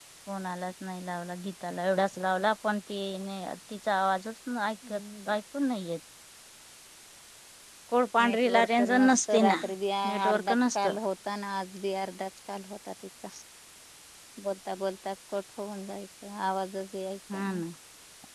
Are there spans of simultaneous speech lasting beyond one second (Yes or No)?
Yes